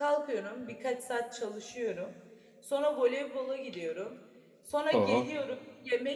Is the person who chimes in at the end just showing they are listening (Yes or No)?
Yes